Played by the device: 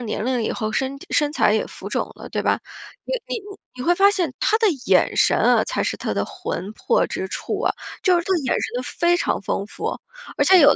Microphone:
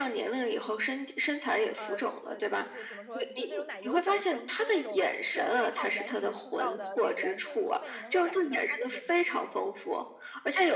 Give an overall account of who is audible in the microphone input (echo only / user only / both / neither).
both